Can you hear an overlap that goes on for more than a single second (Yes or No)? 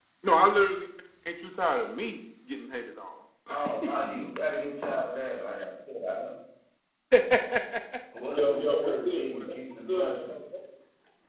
Yes